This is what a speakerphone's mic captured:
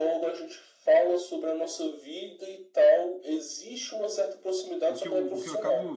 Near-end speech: present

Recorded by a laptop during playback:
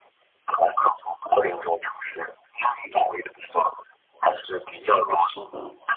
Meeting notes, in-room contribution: present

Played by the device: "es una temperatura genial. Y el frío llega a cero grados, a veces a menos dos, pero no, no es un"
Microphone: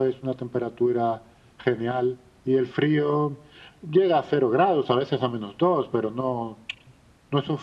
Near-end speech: none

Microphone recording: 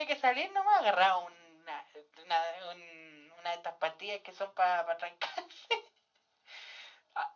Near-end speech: none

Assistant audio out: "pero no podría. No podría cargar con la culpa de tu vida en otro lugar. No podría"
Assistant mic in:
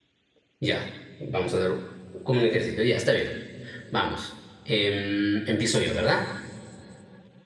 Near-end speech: present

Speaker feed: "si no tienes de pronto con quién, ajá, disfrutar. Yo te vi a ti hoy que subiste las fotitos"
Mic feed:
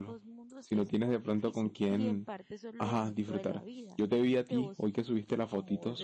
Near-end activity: present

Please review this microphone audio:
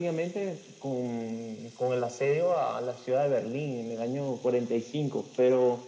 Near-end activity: none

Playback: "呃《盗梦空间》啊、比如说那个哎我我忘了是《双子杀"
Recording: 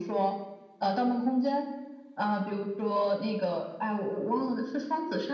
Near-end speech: none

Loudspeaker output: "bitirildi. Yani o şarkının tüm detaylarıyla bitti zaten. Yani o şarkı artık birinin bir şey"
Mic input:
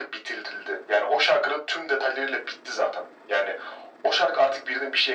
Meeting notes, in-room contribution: none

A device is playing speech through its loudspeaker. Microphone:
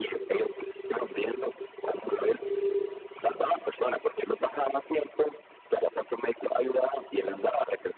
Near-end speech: none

